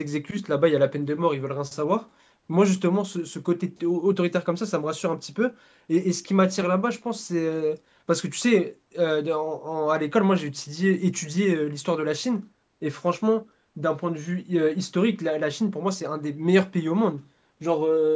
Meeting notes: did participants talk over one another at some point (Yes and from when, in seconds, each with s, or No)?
No